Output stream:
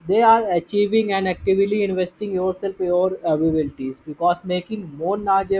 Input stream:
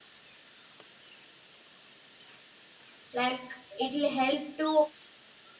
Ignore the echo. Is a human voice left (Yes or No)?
Yes